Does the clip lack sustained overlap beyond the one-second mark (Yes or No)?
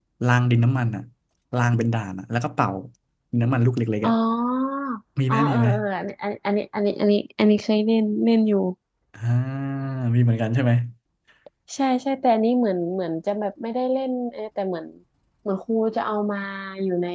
Yes